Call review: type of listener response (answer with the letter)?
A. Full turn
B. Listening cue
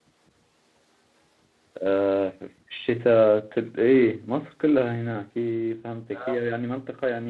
B